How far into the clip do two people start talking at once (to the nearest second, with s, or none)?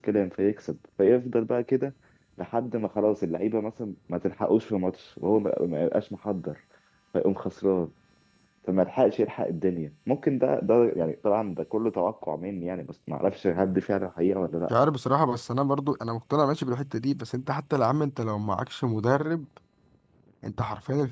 none